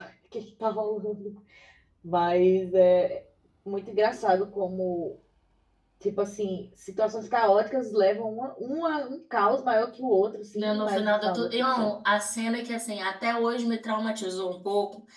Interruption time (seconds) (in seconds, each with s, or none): 10.6 s